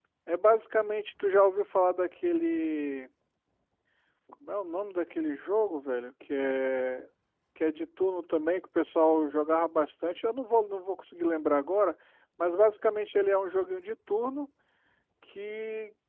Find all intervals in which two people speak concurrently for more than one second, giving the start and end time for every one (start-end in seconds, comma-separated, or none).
none